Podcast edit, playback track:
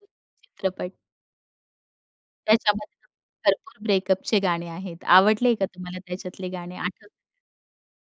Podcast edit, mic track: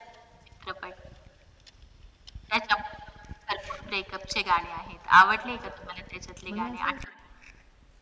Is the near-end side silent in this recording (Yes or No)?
No